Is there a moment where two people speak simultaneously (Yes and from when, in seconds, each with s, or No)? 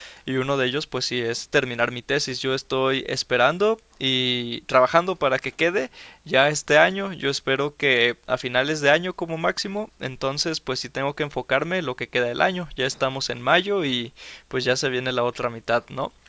No